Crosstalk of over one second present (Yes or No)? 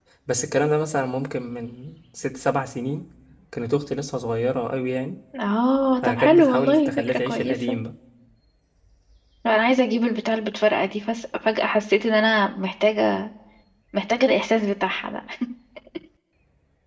Yes